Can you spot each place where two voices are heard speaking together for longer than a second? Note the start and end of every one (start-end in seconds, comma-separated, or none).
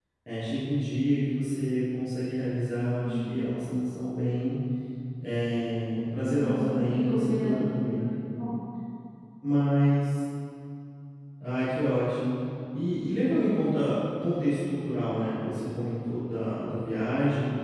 6.3-7.9